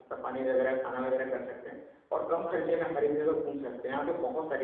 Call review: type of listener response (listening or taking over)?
listening